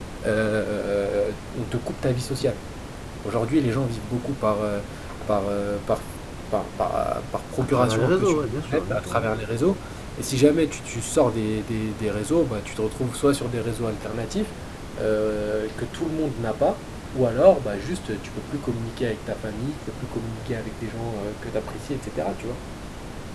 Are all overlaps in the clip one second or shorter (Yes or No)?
No